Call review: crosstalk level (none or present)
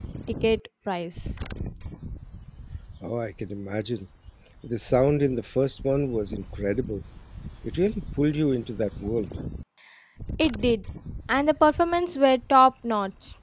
none